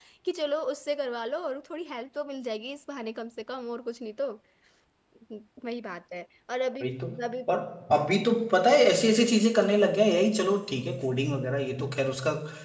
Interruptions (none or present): none